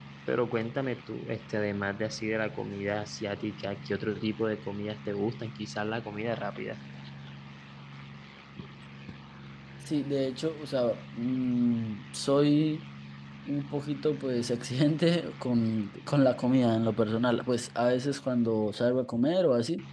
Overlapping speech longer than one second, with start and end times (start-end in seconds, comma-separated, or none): none